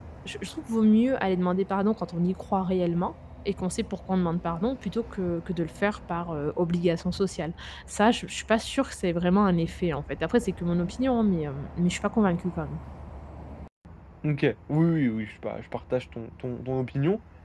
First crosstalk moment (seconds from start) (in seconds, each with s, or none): none